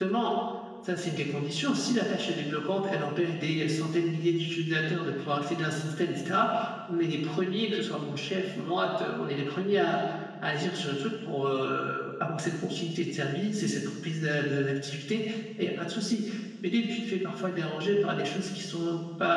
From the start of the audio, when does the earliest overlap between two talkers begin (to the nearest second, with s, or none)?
none